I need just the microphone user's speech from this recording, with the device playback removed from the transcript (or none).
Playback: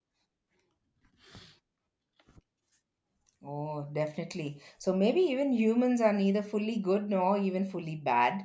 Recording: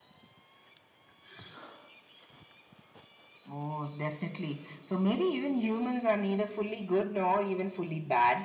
none